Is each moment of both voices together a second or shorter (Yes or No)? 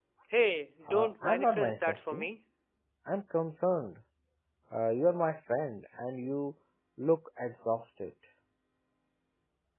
No